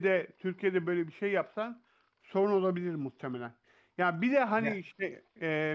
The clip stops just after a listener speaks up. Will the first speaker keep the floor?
Yes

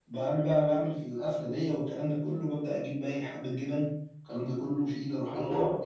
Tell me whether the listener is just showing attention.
Yes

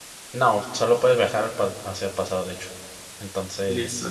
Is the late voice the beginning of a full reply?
Yes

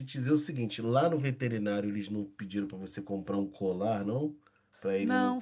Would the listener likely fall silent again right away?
No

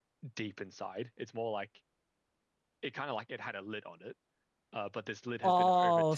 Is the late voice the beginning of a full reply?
Yes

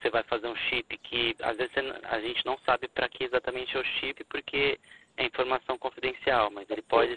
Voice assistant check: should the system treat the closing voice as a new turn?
No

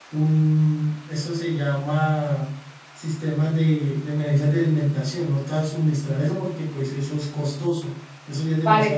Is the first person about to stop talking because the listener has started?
Yes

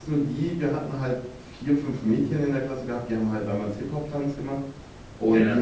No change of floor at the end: Yes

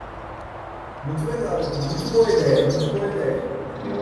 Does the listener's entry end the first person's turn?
Yes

